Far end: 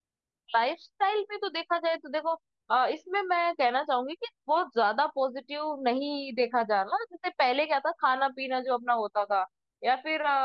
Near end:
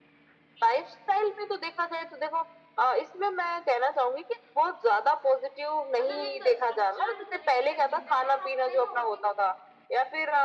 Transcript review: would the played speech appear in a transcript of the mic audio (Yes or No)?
Yes